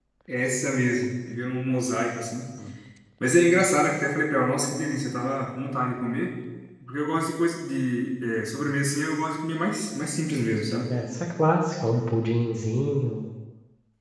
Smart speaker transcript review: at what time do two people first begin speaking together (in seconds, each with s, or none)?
none